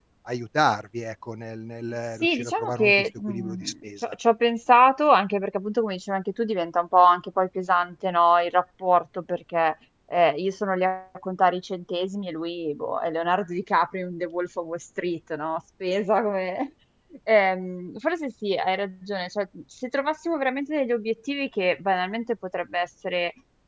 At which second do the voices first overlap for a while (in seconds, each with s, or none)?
2.2 s